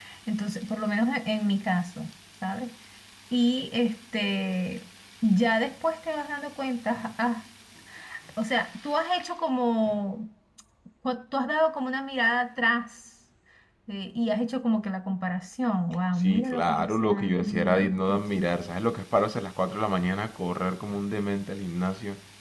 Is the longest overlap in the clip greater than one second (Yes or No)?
Yes